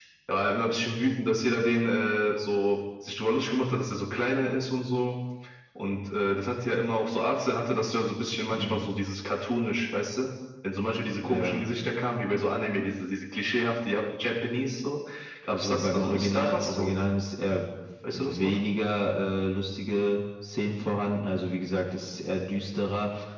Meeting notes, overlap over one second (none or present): present